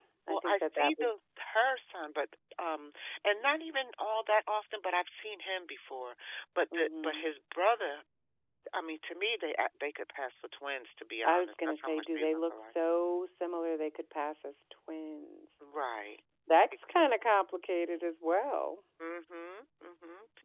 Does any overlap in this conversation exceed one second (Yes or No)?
Yes